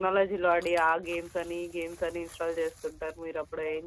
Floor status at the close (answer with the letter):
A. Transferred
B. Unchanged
A